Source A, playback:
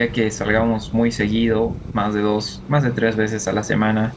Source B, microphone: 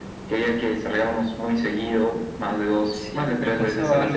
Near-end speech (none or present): present